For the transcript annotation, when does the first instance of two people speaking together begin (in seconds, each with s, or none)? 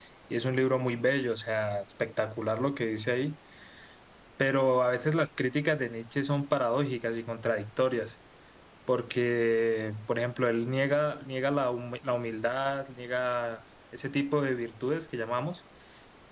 none